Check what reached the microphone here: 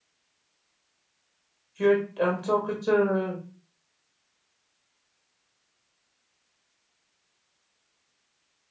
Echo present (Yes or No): No